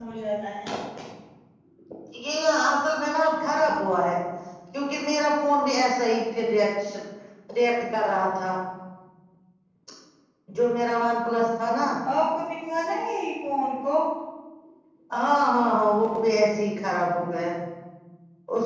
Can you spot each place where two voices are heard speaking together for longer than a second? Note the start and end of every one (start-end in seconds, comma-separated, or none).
none